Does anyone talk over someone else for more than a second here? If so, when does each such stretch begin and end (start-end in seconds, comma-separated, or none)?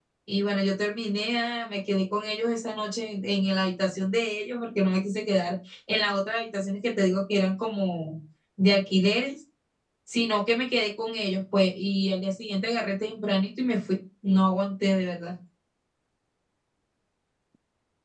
none